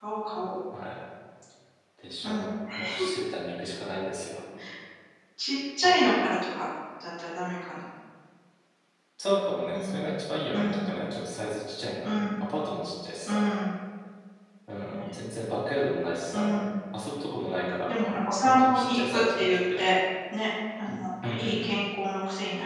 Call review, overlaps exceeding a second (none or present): present